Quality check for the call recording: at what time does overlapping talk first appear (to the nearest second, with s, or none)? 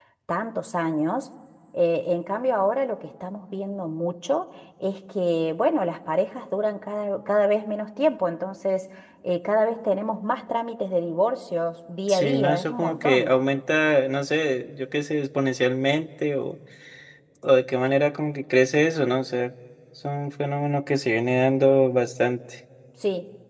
12 s